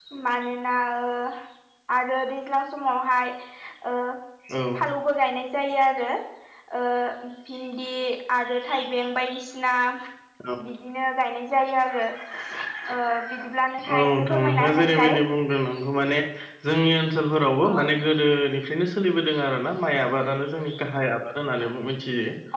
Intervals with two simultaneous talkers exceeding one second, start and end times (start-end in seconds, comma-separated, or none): 14.0-15.2